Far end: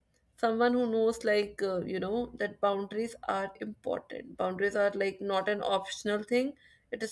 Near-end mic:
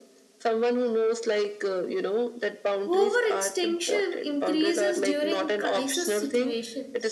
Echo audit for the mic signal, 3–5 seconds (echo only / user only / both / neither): both